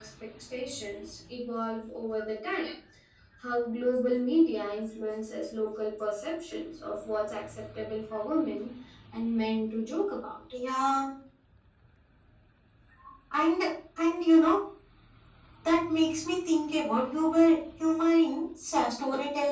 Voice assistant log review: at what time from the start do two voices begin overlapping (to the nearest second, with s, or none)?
none